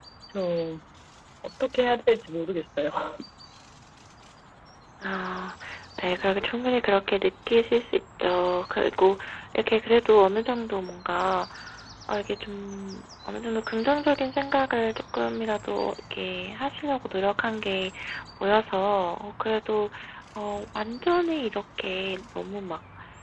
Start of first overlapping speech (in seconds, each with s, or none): none